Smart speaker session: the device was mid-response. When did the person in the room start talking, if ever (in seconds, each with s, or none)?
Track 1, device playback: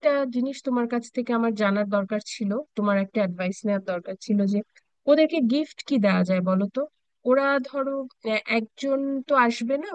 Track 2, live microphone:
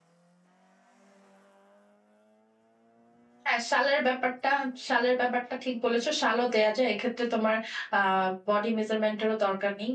3.5 s